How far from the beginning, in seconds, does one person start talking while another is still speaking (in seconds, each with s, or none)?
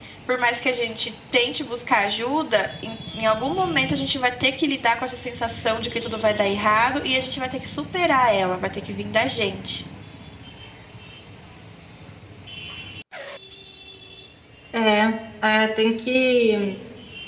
none